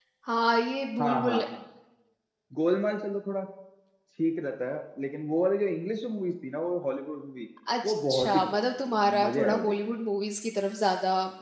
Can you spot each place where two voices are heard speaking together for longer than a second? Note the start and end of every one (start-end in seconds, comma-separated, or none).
7.8-10.0